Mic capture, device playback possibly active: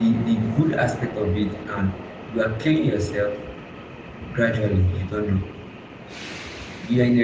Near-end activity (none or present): present